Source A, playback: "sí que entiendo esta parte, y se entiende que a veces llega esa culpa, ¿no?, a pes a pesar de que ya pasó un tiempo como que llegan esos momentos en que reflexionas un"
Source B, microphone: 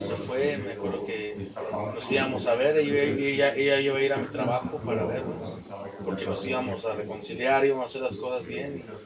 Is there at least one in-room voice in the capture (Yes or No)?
Yes